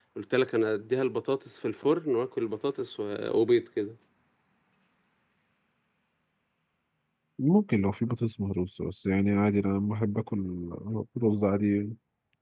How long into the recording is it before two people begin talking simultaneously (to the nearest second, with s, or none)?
none